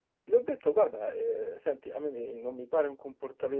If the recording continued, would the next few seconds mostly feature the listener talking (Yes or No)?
No